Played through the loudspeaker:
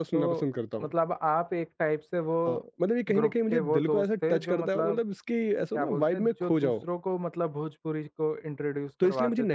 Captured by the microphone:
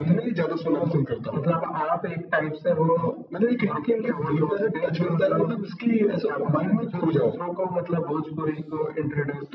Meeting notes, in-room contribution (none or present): none